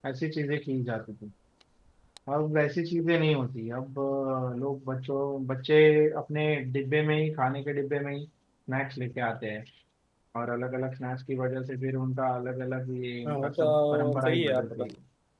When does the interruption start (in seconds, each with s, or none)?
13.2 s